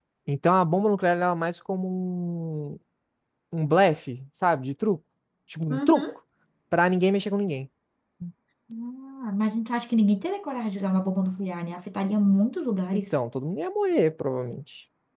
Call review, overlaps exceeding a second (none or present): none